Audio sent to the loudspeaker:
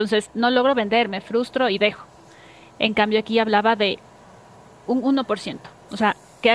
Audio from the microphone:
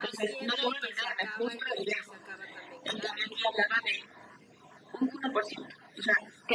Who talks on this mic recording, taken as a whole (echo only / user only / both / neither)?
both